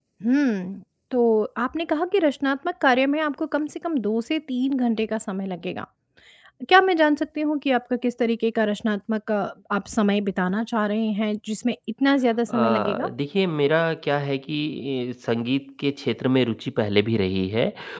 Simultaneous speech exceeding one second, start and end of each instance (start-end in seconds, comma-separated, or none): none